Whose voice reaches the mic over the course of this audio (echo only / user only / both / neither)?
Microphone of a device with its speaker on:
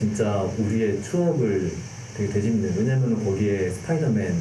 echo only